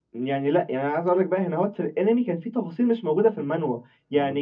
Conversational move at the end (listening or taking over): listening